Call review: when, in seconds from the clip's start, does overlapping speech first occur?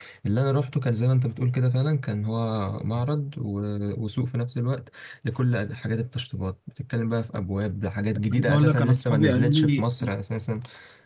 8.3 s

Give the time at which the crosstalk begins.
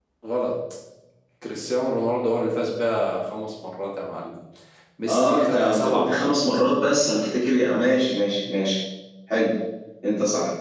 5.1 s

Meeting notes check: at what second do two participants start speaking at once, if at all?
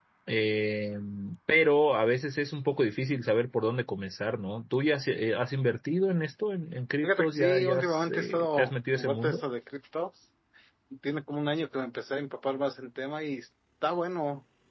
7.0 s

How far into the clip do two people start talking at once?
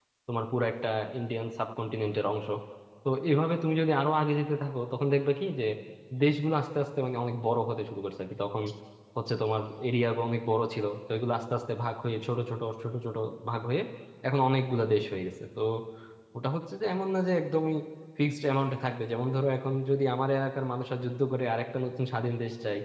none

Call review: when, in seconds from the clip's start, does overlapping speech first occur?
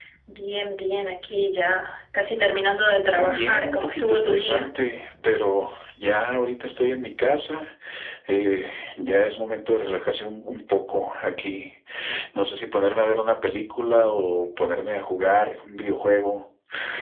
3.1 s

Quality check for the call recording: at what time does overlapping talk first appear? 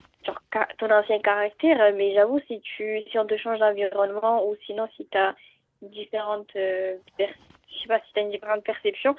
none

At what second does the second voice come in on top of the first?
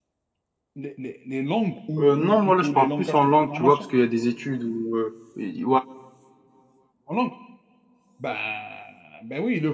2.0 s

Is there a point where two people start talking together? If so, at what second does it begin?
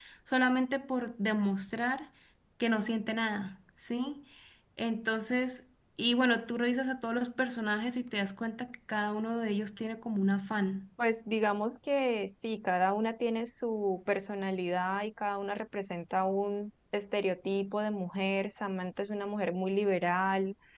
none

